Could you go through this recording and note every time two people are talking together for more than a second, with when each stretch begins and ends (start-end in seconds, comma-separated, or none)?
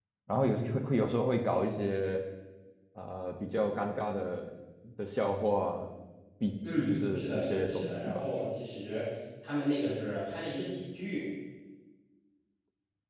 6.7-8.3